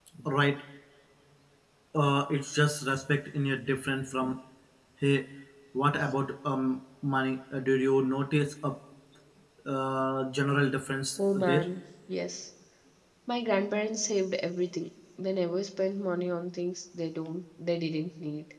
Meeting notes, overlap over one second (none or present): none